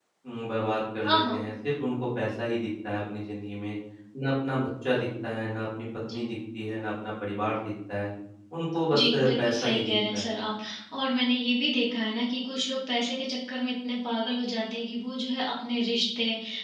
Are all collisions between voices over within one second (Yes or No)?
No